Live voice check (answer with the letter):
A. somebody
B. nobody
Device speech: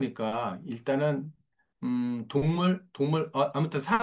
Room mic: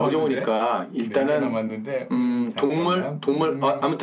A